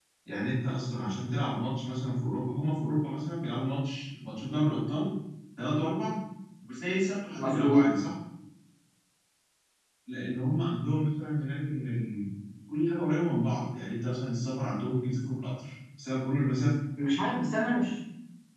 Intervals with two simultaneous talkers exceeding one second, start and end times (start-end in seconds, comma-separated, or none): none